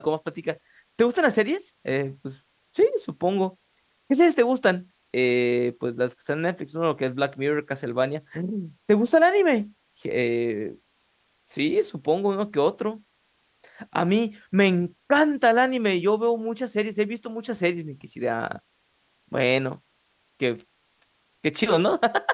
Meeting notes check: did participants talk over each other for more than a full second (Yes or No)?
No